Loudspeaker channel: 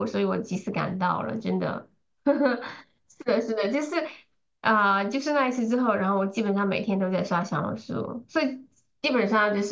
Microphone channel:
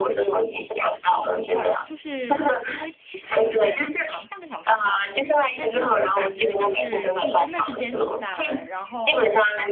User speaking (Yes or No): Yes